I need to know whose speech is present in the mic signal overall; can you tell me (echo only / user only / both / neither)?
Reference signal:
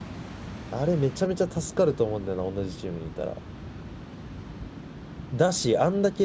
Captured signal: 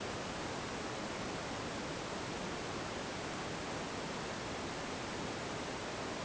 neither